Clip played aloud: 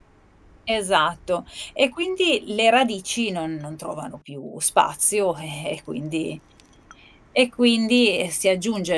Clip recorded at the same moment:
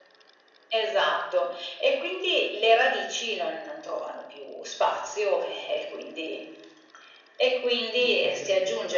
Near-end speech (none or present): present